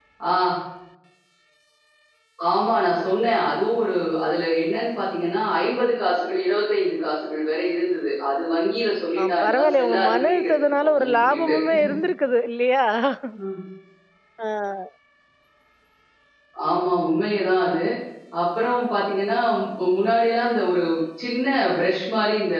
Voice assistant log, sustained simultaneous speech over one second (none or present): present